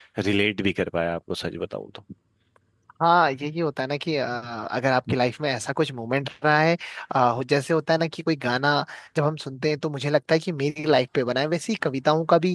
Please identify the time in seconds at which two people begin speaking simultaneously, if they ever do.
none

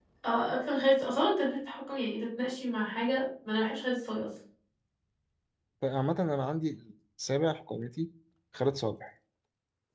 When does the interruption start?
none

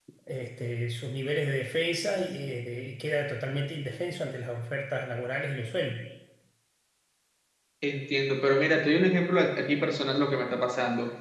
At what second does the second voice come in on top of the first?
none

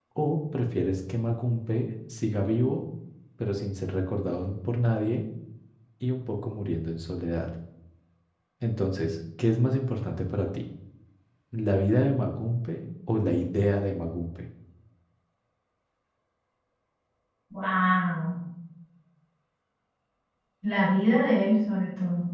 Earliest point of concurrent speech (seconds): none

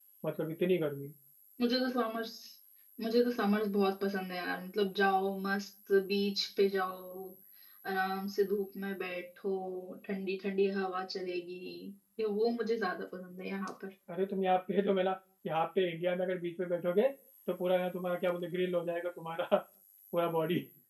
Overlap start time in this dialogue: none

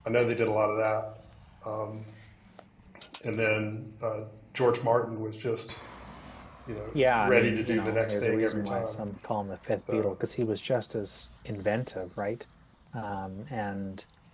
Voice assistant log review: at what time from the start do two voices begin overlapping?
7 s

